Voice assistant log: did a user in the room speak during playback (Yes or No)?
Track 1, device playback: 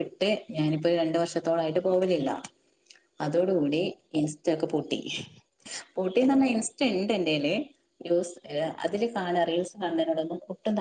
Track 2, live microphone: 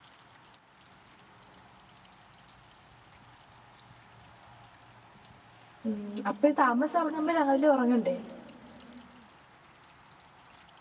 Yes